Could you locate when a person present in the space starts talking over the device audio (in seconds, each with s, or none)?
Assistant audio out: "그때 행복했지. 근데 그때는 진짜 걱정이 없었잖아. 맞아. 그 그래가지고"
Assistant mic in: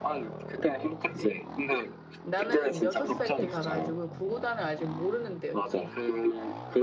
2.2 s